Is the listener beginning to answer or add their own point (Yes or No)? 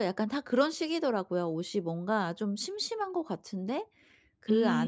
No